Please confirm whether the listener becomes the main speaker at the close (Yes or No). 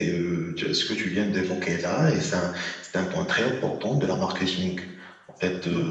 No